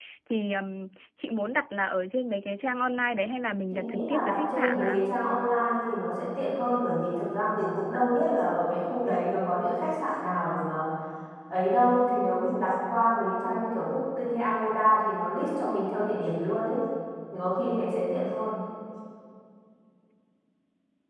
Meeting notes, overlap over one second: present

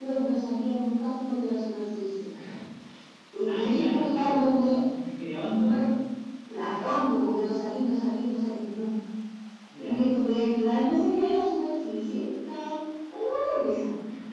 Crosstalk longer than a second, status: present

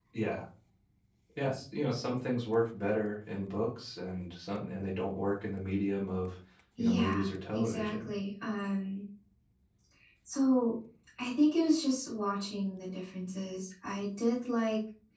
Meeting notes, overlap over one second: present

